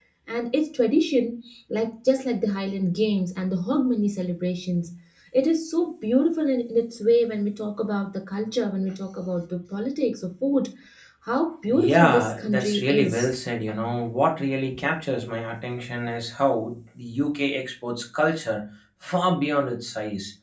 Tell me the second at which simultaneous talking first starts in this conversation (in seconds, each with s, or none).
11.7 s